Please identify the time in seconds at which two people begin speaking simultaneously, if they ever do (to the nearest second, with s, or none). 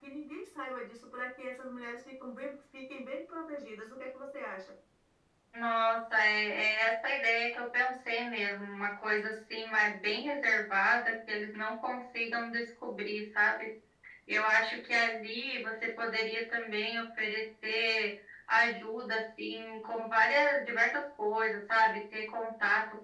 none